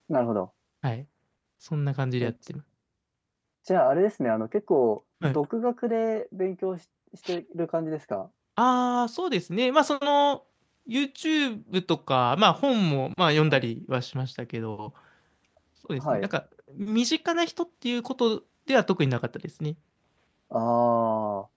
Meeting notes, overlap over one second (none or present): none